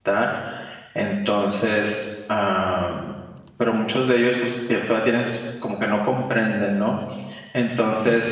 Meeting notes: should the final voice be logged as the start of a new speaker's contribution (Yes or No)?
No